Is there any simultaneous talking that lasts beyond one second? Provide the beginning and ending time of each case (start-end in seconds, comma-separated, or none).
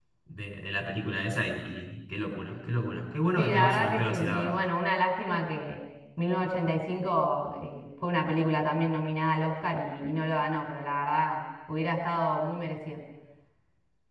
3.4-4.6